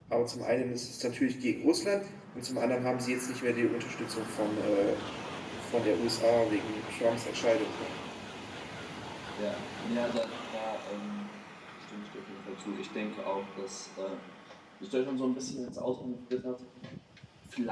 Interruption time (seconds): none

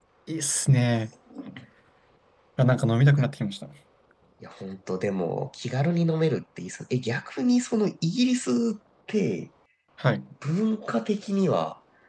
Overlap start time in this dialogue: none

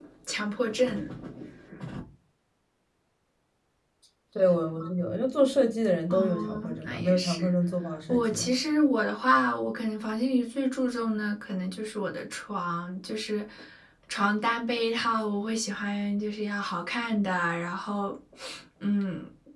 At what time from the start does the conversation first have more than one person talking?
6 s

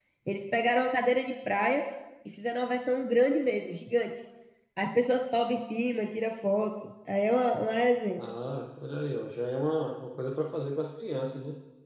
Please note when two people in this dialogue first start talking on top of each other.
none

